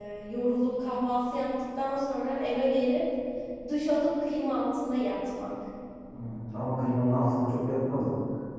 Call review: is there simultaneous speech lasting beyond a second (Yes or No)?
No